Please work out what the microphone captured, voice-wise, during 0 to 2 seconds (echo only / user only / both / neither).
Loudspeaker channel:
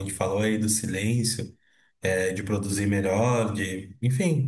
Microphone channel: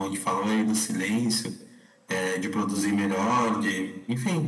echo only